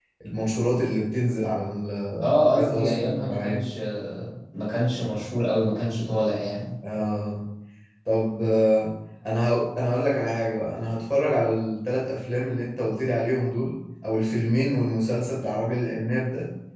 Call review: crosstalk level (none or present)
present